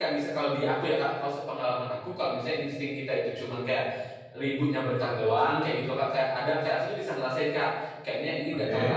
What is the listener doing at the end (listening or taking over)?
listening